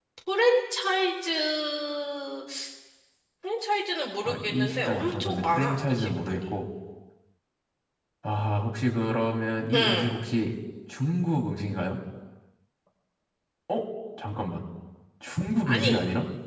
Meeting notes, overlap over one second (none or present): present